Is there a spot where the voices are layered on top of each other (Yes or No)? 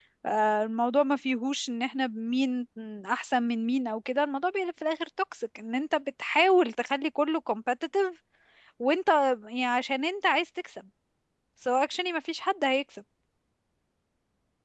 No